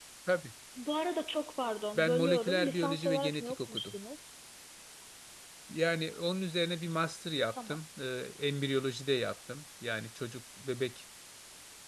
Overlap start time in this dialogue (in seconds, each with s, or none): 1.9 s